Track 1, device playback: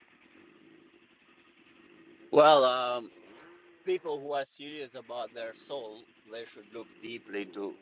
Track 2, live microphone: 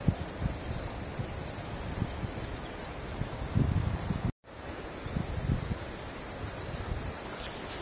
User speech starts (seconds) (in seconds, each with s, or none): none